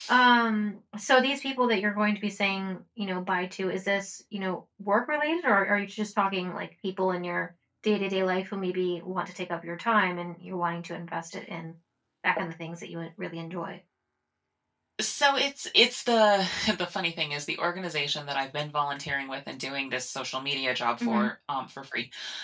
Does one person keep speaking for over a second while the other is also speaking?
No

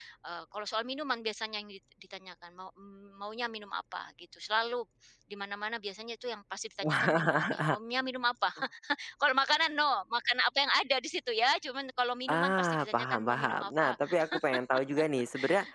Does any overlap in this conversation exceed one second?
Yes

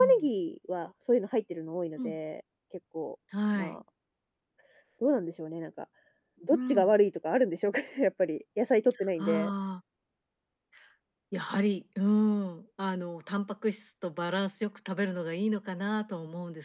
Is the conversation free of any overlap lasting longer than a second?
Yes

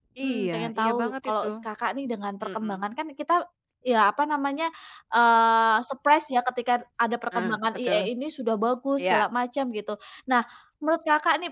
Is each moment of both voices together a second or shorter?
No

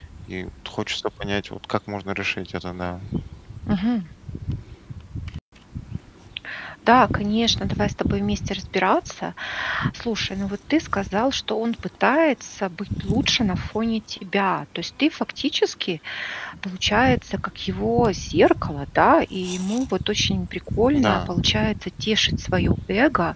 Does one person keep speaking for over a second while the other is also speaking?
No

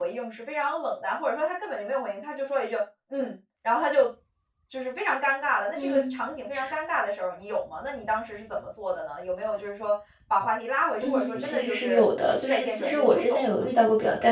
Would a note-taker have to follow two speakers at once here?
Yes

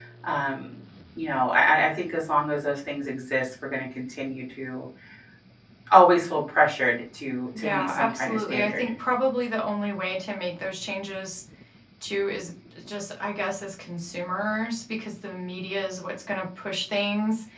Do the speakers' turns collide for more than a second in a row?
Yes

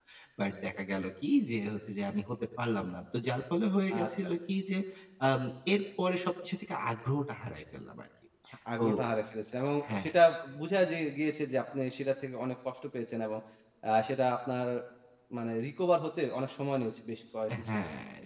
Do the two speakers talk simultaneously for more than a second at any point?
No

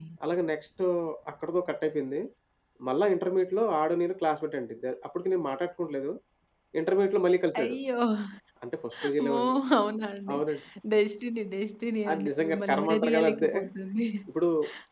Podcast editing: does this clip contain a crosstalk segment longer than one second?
Yes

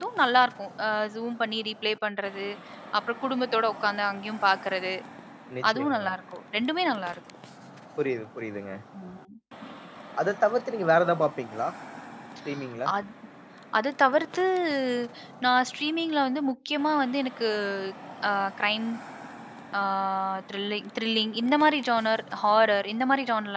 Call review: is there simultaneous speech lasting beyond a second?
No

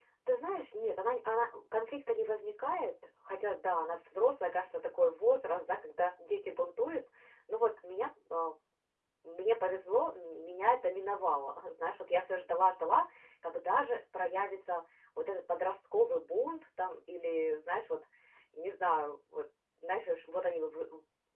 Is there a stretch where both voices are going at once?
No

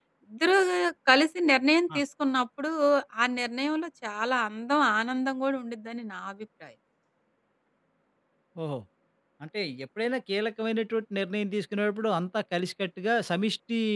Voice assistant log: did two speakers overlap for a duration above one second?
No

